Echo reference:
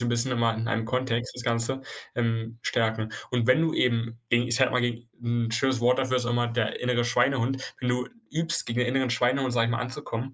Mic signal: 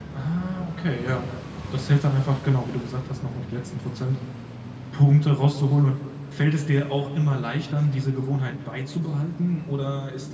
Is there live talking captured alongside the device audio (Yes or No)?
Yes